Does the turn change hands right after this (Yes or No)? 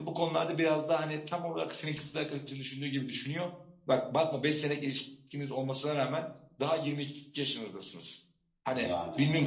No